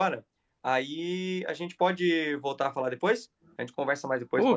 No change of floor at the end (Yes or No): No